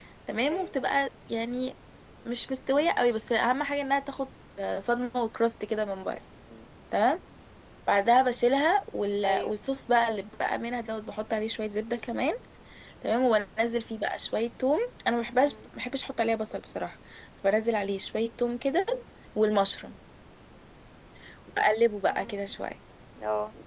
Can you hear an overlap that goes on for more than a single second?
No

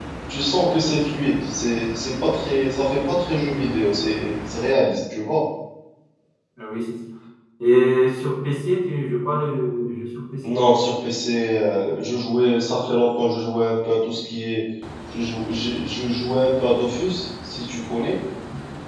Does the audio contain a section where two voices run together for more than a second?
No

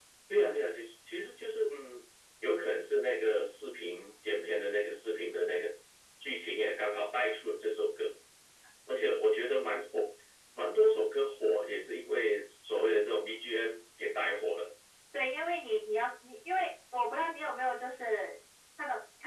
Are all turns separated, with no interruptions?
Yes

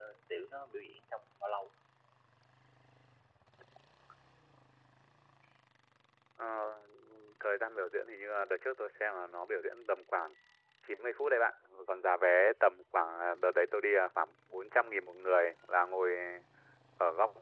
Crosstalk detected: No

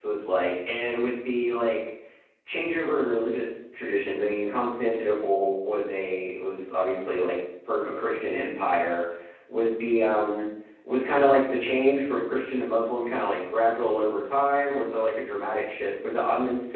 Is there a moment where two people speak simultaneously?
No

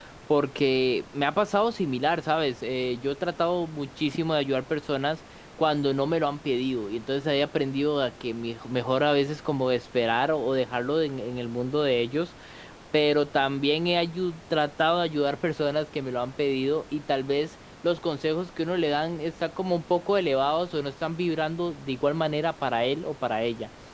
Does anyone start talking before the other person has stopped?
No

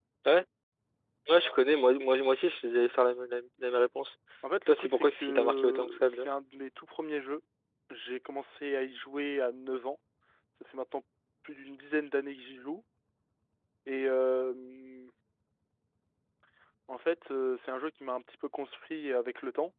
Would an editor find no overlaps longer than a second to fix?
No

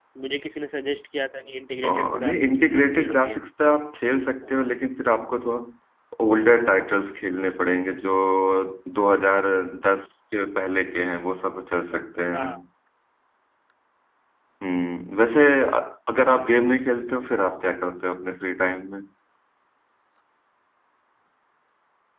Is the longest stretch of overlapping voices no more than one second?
No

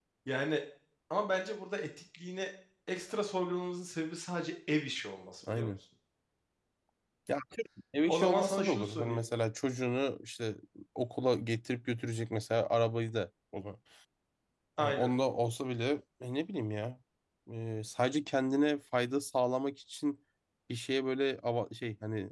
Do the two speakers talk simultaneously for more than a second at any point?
Yes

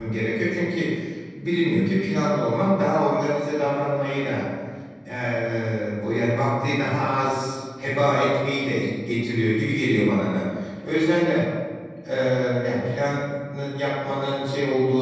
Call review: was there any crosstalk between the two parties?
No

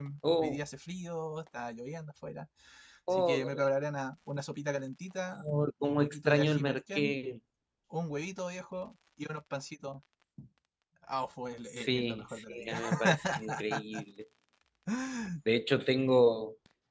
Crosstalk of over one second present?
Yes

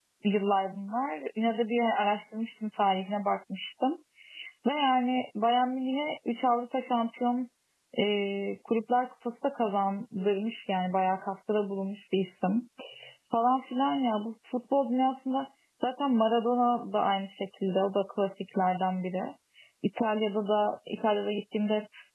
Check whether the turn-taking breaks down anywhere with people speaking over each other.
No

